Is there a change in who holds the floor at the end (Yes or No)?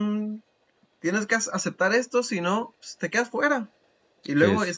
No